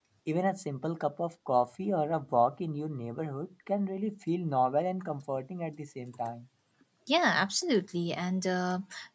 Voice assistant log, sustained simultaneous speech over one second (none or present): none